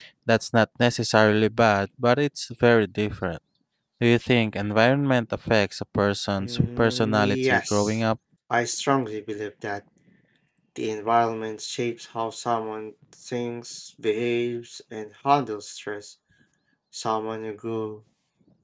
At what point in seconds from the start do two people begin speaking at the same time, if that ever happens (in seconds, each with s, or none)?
6.4 s